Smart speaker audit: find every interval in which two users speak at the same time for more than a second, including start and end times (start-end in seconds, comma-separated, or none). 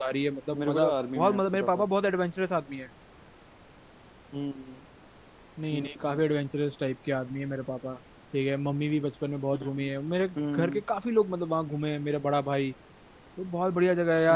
0.6-1.9